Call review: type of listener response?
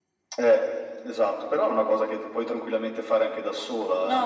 taking over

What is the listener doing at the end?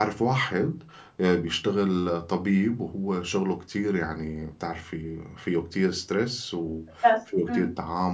listening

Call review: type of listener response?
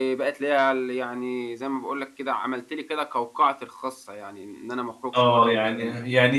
taking over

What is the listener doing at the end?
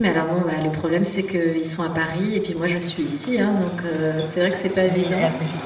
taking over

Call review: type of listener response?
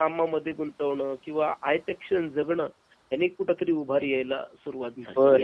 taking over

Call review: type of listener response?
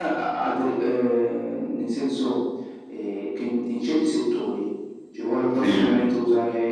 listening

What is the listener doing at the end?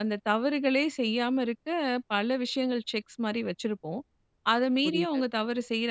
listening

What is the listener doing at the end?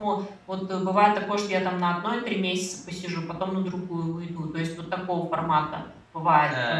taking over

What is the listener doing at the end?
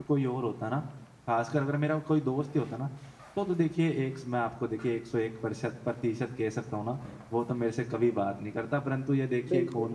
listening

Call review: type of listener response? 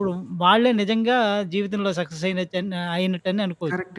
taking over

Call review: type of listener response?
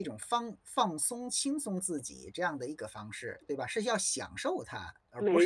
taking over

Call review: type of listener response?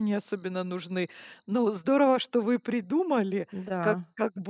listening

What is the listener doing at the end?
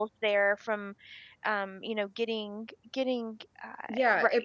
taking over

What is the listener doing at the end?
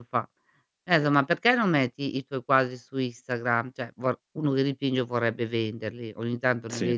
listening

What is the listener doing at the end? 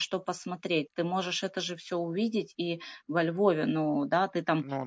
listening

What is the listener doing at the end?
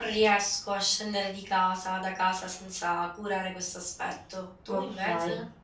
taking over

